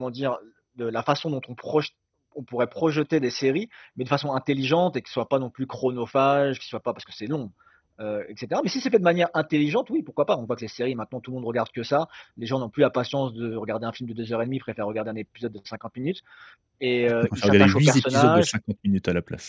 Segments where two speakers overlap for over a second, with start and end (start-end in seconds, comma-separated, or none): 17.3-18.5